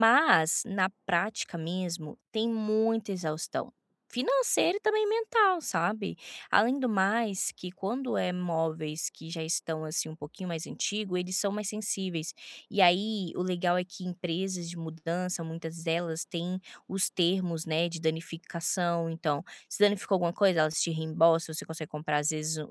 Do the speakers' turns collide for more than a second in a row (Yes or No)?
No